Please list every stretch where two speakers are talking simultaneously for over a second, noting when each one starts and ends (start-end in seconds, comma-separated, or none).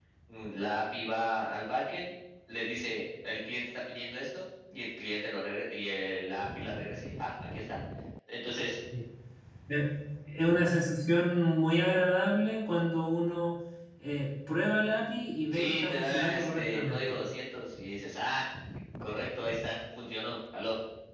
15.5-17.0